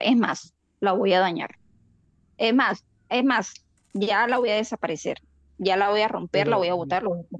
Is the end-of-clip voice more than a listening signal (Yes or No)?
No